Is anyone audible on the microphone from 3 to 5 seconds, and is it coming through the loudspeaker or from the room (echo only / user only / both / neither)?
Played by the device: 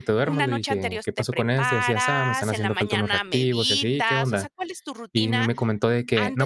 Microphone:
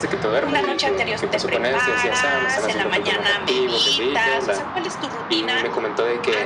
echo only